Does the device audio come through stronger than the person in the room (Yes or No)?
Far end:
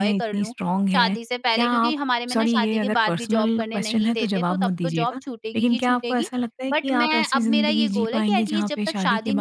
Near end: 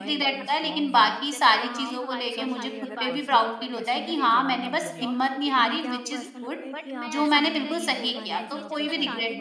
No